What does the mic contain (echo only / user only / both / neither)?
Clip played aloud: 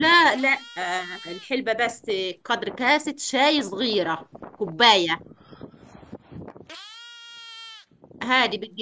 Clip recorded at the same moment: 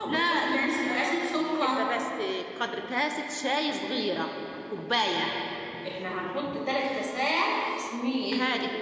both